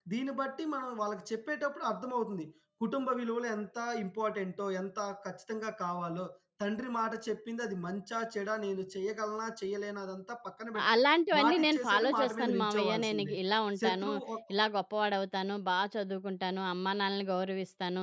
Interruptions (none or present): present